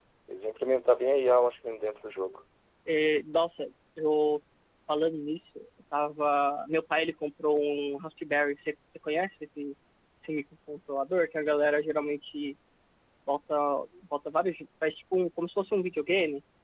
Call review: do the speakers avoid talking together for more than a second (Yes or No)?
Yes